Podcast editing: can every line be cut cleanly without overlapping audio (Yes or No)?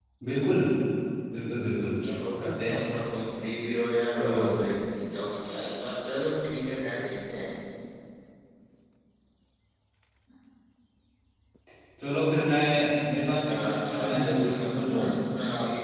No